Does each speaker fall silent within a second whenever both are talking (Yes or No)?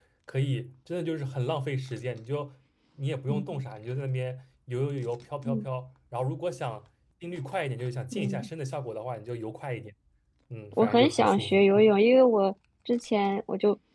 No